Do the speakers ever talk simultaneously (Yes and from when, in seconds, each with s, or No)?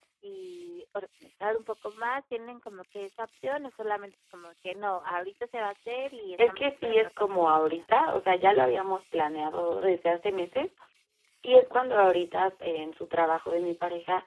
Yes, from 6.4 s